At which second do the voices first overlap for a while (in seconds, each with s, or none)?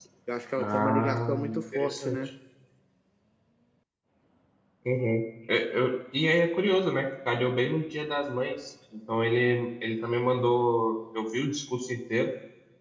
0.6 s